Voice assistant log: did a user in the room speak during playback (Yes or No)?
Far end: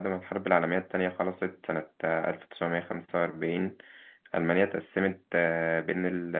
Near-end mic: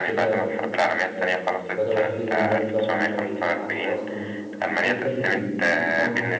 Yes